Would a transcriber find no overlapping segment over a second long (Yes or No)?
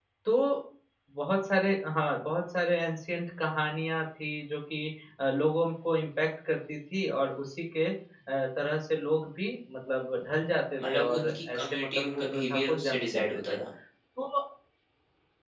No